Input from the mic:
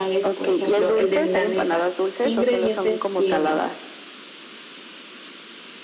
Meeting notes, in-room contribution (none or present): present